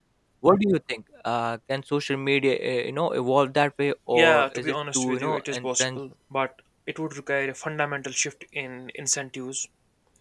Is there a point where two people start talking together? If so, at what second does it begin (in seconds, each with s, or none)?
4.1 s